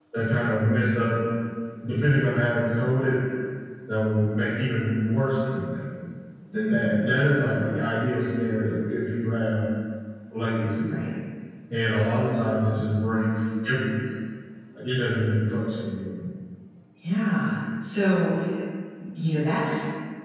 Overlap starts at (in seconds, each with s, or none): none